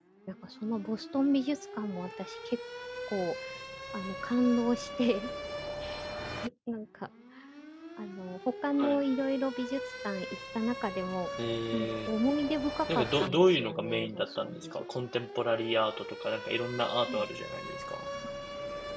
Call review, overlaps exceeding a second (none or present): present